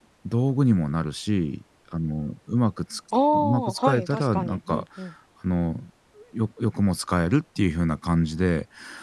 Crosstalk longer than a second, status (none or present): present